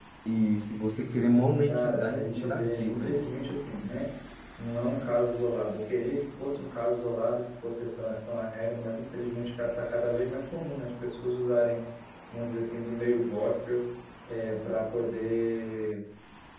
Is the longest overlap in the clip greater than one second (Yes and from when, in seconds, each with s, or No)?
Yes, from 1.7 s